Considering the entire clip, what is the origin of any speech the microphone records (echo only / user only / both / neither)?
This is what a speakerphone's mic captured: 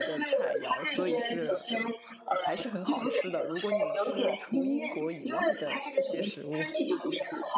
both